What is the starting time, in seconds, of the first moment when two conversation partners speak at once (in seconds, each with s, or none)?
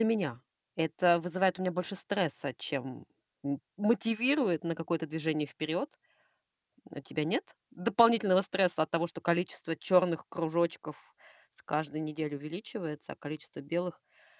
none